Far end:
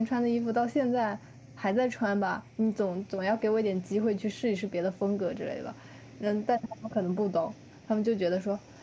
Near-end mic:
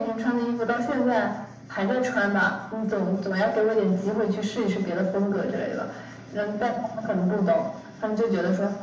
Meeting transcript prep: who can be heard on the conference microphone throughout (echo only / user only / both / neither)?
echo only